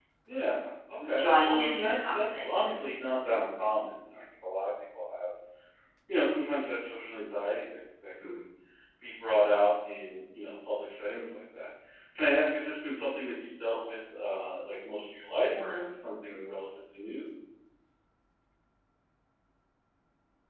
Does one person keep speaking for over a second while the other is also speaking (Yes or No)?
Yes